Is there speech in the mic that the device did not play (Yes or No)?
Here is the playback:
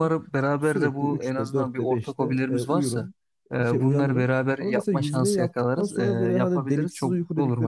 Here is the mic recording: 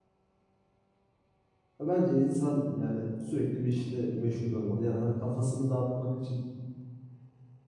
Yes